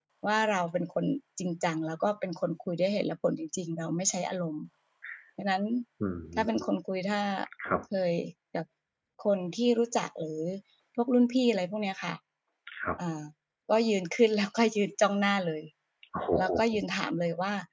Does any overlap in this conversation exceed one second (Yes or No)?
No